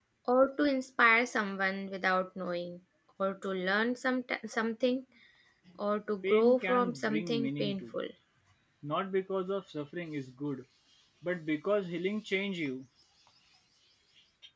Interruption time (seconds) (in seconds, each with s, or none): 6.2 s